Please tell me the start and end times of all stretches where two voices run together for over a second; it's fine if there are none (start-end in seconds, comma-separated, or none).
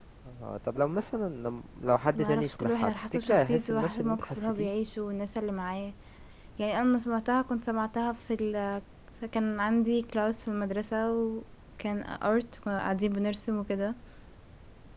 2.2-4.7